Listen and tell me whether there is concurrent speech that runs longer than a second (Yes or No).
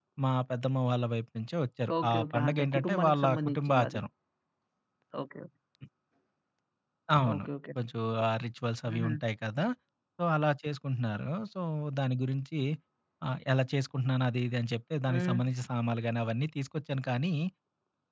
Yes